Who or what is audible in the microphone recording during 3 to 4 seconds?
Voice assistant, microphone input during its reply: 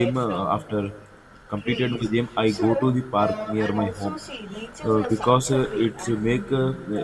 both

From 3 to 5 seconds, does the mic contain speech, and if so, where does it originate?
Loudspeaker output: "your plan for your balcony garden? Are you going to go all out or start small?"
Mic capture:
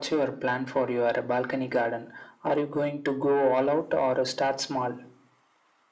echo only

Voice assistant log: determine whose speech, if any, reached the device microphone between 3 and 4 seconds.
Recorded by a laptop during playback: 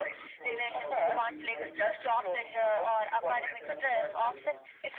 both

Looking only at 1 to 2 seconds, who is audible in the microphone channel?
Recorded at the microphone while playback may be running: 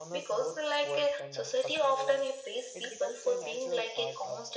both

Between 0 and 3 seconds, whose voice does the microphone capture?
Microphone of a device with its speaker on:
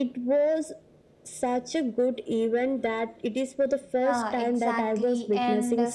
echo only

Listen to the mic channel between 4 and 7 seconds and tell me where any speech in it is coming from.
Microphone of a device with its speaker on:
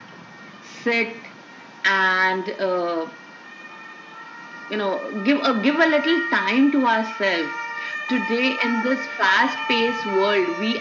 echo only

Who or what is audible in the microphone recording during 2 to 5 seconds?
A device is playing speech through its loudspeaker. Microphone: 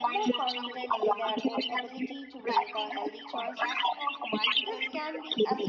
both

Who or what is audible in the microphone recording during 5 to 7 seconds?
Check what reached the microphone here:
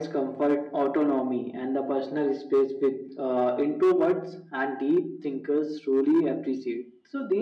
echo only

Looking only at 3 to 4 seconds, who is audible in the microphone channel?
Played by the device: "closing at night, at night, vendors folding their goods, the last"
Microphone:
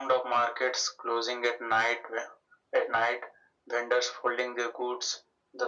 echo only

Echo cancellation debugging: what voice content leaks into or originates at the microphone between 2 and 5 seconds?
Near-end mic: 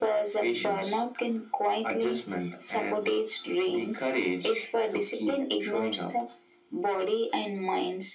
echo only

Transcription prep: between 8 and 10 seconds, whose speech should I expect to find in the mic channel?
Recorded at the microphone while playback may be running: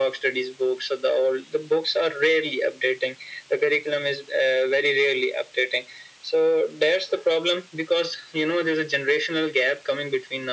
echo only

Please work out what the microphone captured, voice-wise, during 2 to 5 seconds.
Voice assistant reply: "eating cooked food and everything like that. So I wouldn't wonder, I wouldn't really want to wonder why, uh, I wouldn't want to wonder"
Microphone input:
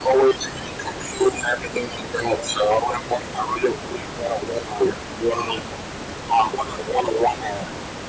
echo only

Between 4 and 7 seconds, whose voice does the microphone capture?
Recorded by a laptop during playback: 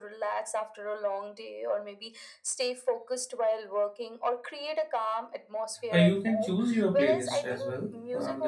both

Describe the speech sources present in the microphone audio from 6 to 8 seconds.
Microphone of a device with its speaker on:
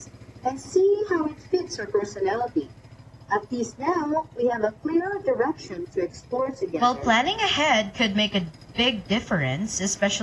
both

